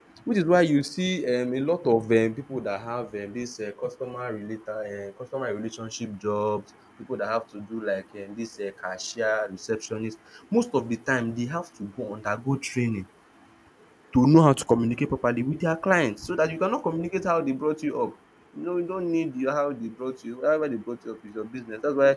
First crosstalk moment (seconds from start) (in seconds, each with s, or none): none